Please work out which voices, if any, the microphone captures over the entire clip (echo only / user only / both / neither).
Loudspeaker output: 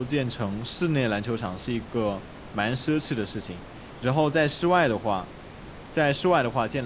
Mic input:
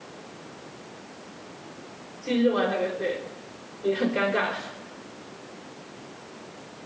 user only